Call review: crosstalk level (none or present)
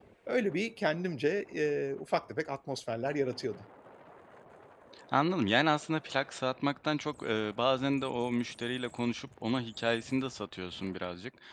none